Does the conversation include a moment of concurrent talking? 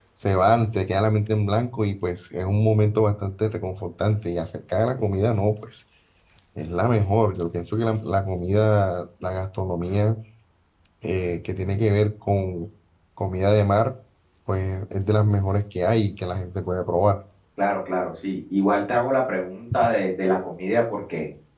No

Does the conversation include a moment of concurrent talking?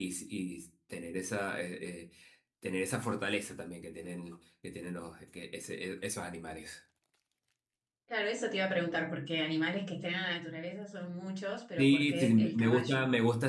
Yes, from 11.8 s

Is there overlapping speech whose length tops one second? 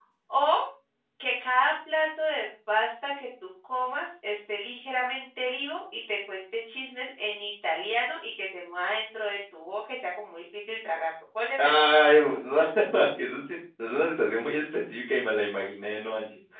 No

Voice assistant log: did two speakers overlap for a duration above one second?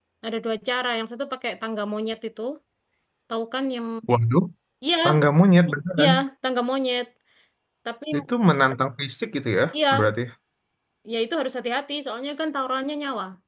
No

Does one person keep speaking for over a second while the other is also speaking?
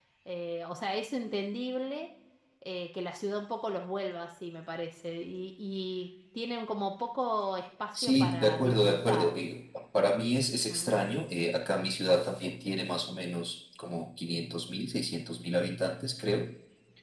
Yes, from 7.9 s

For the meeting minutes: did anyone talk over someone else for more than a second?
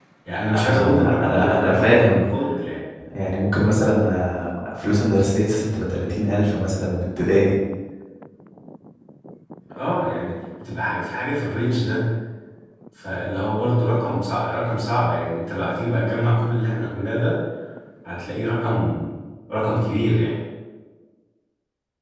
Yes, from 0.5 s

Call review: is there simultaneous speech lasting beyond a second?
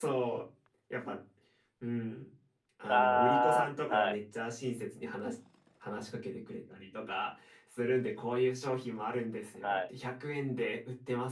Yes, from 2.9 s

